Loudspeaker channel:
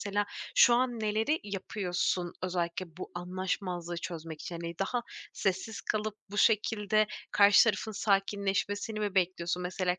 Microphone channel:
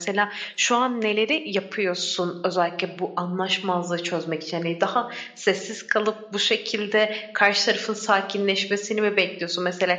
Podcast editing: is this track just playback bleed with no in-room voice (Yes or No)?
Yes